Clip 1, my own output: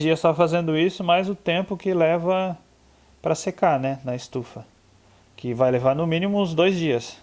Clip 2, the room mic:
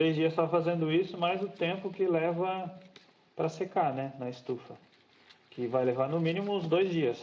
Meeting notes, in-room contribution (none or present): none